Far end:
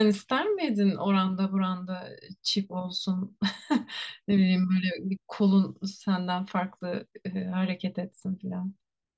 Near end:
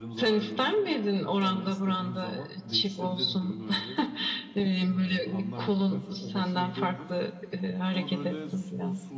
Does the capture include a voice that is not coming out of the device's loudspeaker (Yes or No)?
Yes